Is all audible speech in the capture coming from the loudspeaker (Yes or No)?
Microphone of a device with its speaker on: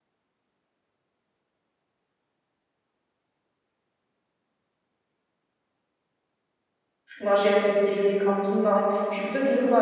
No